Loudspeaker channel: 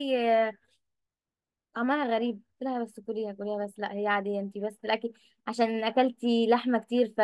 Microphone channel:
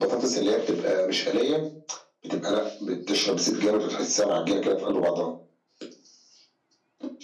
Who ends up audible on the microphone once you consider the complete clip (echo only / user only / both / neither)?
user only